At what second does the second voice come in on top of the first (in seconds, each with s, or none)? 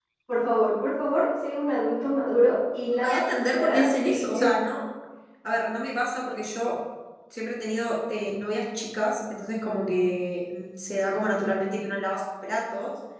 2.9 s